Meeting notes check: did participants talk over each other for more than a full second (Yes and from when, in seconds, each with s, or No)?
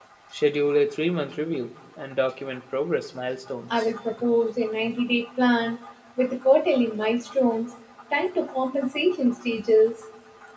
No